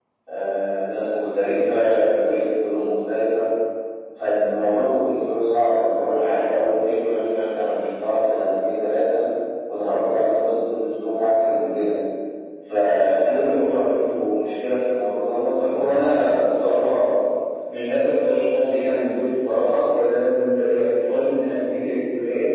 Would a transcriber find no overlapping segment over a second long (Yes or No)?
Yes